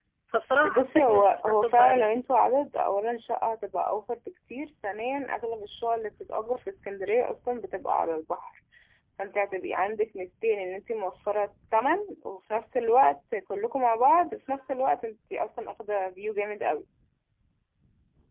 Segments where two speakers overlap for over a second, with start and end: 0.7-2.1

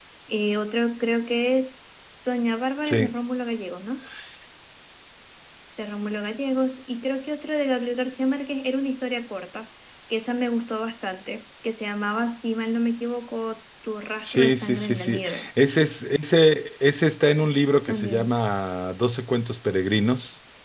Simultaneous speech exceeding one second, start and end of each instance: 14.2-15.5

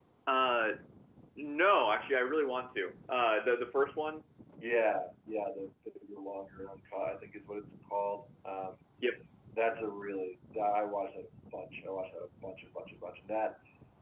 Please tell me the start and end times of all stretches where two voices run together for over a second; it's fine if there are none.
none

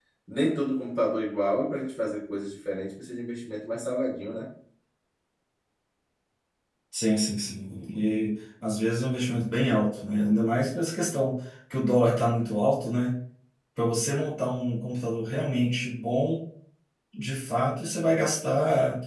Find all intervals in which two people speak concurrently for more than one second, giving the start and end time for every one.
none

